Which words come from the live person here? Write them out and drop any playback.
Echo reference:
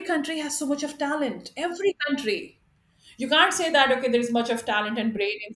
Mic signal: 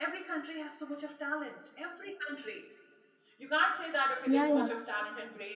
Yeah, yeah,

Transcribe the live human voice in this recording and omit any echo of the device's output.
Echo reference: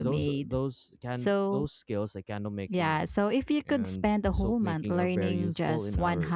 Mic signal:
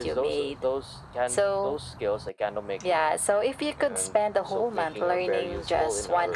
none

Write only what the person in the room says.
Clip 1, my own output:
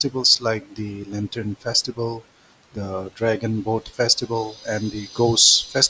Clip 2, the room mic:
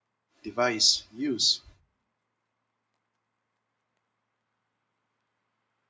device use

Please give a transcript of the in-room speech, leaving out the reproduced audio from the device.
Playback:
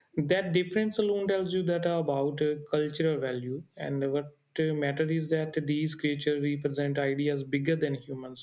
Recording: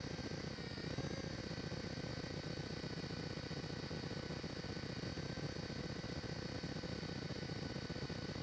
none

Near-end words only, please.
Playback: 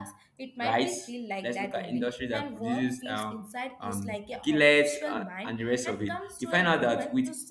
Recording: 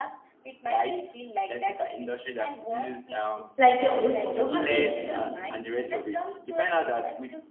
like a old photography

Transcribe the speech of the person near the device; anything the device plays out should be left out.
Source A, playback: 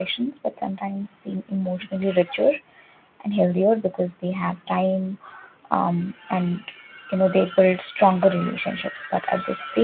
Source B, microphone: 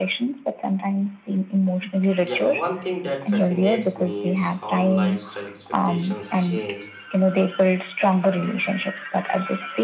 Yeah, one thing that fascinates me is how lifestyle expectations change

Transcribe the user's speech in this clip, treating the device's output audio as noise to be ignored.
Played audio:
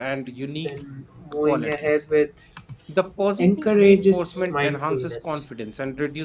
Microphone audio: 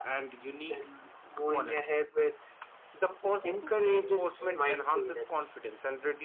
none

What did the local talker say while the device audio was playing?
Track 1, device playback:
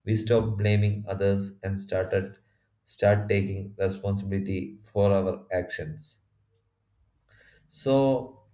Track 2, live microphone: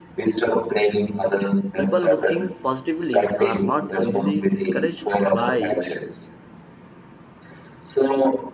People who think positively are not easily discouraged by

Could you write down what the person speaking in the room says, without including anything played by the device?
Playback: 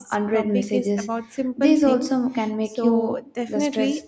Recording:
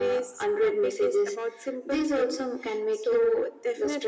none

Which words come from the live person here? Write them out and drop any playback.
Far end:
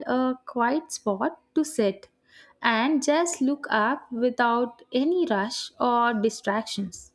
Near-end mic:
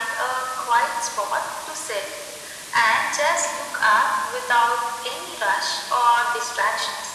none

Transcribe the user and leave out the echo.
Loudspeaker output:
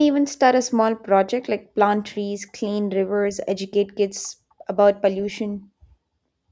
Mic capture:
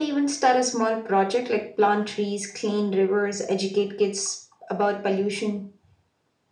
none

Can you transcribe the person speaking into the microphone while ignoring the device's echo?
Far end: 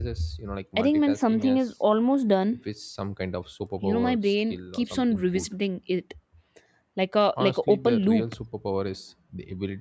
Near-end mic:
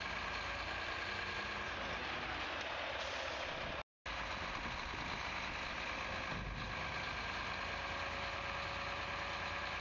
none

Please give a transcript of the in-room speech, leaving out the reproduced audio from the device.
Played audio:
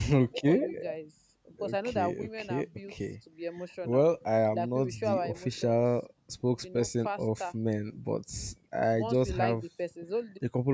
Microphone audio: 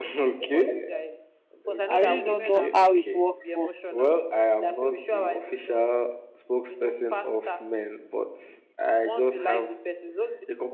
I really don't know how it works for

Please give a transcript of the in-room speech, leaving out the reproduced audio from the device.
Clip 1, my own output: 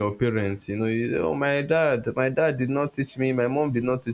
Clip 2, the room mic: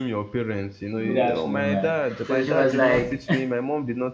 Good afternoon, man. So she was like,

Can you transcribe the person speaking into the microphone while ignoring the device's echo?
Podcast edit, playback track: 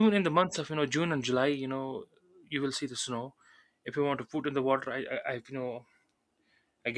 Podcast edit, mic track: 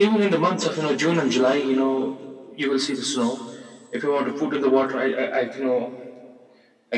none

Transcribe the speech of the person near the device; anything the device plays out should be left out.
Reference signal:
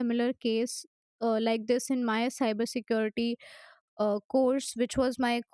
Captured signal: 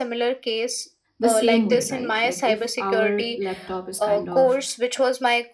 the same way right like if our laptop is kind of

